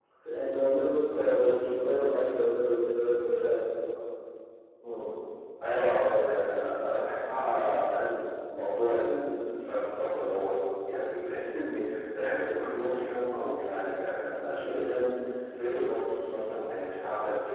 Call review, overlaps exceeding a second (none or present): none